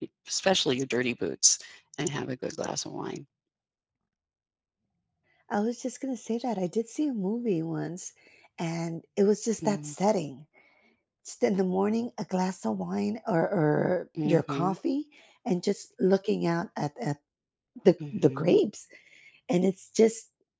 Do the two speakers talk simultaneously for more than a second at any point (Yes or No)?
No